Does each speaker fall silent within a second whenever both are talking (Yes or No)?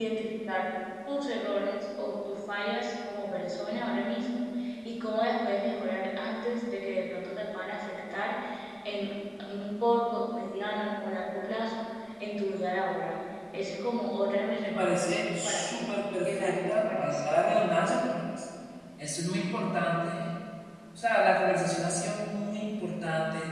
No